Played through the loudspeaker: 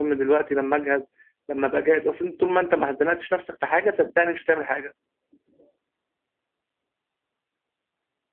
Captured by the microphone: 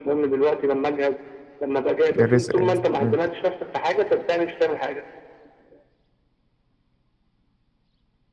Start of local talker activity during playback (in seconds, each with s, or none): 2.1 s